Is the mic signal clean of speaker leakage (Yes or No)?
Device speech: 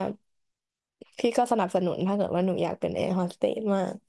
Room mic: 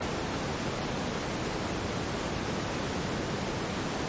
Yes